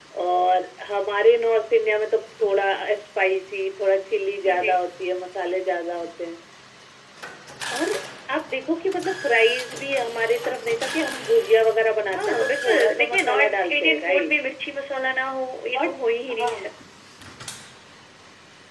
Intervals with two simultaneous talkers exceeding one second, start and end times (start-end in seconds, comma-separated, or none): 12.1-14.3